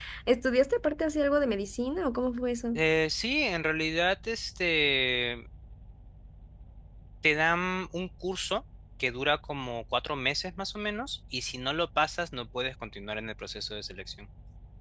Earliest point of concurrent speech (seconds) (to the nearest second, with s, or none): none